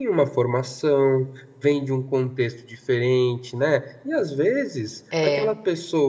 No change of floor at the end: Yes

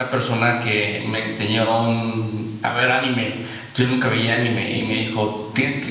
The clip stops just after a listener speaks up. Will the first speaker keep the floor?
Yes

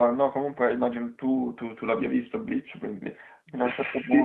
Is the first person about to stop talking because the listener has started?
Yes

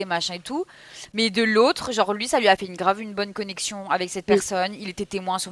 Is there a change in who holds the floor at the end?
No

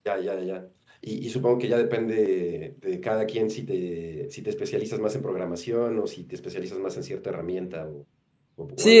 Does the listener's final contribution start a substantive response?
Yes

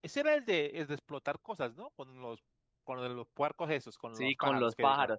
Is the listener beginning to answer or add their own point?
Yes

